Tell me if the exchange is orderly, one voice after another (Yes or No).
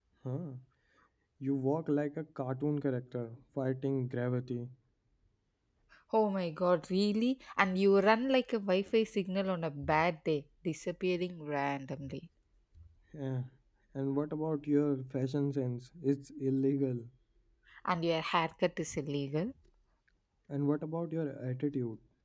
Yes